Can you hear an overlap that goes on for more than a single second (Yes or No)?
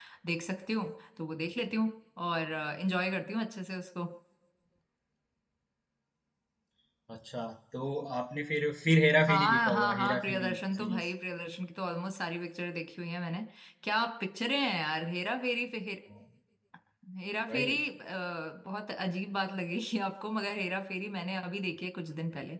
Yes